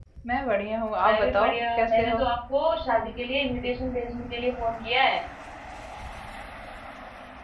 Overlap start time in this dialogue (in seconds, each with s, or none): 1.0 s